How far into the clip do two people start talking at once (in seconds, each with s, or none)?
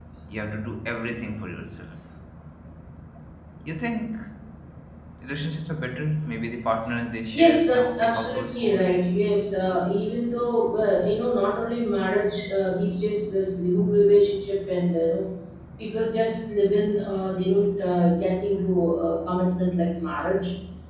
7.3 s